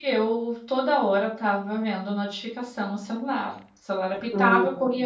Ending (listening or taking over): listening